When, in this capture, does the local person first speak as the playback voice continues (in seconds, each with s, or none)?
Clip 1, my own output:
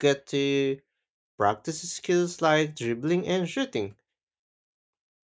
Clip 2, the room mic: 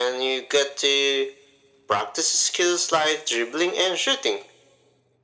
none